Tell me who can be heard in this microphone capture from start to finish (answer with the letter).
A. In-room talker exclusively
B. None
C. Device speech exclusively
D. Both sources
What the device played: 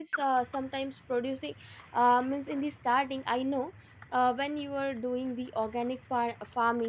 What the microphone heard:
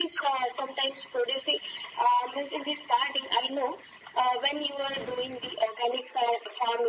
C